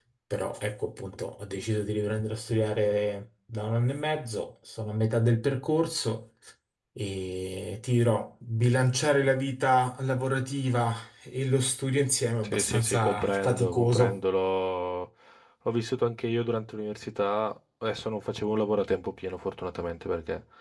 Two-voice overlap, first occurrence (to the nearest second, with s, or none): 12 s